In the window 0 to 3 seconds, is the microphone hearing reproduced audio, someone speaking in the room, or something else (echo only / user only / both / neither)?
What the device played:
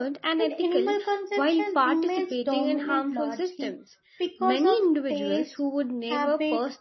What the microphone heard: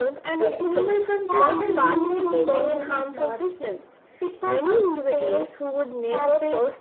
both